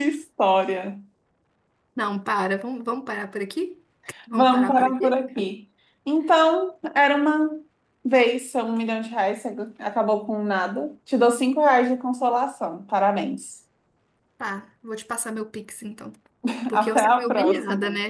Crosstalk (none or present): present